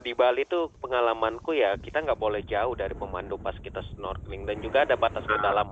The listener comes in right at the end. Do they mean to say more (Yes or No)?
No